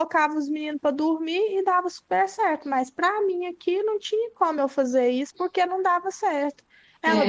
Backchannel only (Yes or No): Yes